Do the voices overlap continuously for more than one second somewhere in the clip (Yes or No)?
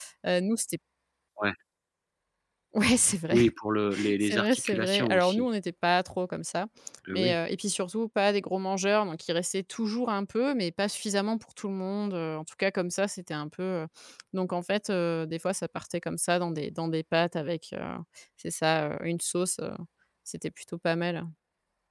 Yes